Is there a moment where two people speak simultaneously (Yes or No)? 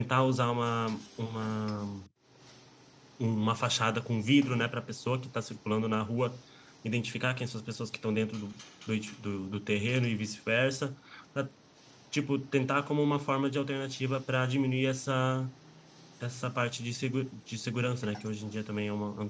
No